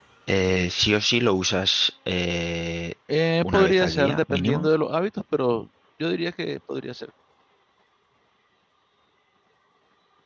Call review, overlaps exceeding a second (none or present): present